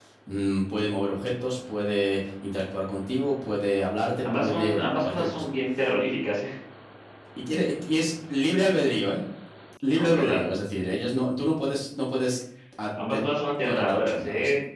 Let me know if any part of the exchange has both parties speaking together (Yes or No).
Yes